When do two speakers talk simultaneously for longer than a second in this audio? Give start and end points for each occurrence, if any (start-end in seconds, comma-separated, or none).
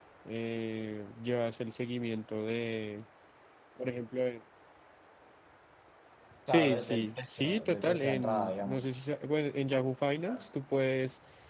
6.5-8.9